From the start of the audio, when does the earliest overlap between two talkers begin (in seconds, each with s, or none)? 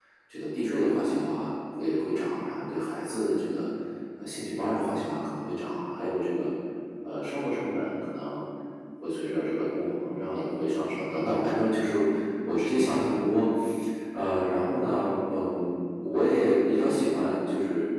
none